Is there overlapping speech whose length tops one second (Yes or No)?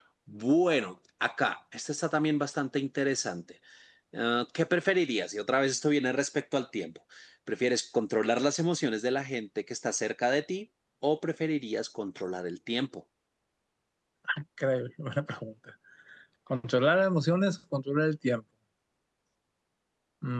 No